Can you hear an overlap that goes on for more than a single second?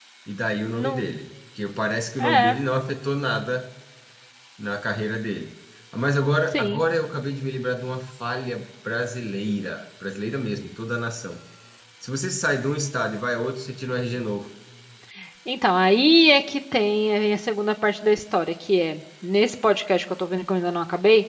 No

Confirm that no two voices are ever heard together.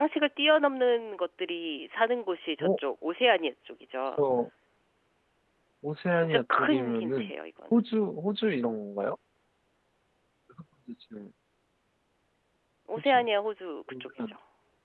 No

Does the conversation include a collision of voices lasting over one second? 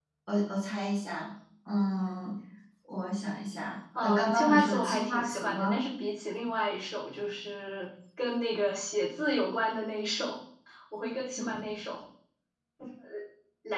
Yes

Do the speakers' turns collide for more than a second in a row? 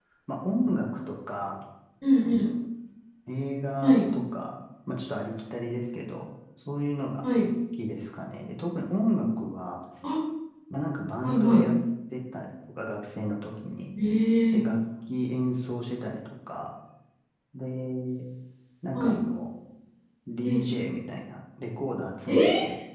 No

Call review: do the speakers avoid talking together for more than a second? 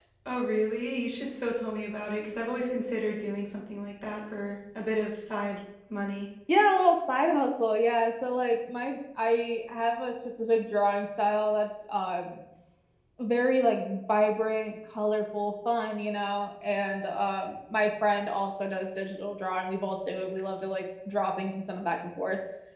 Yes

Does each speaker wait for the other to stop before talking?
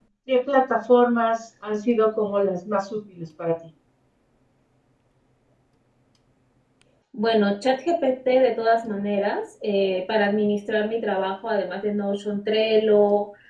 Yes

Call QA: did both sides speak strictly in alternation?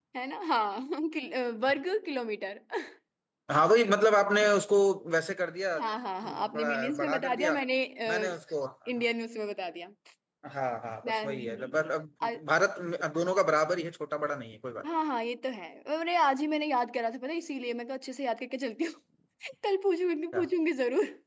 No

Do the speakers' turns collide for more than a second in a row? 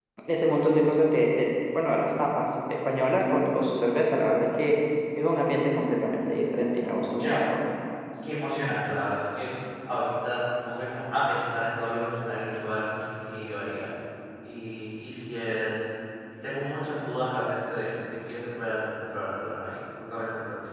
No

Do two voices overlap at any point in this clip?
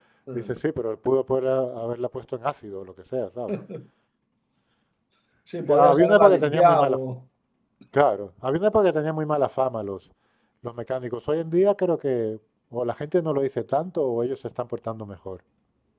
Yes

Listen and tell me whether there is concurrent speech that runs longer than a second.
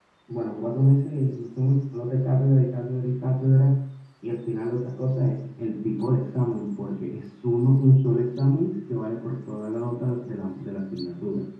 No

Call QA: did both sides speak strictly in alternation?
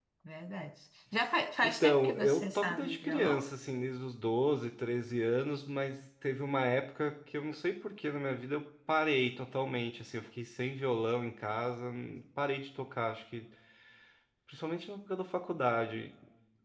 No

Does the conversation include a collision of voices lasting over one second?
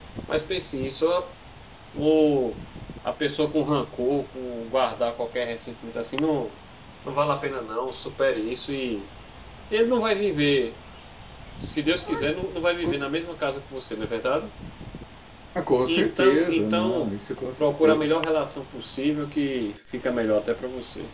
Yes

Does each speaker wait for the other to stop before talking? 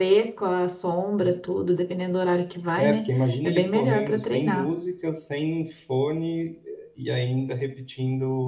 No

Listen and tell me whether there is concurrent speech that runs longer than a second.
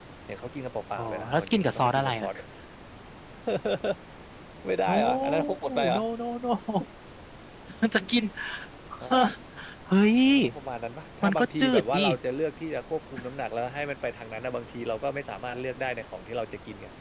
Yes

